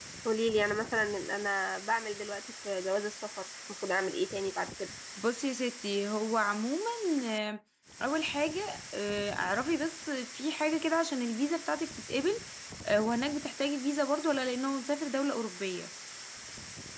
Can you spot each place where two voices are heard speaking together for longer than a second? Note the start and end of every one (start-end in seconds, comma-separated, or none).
none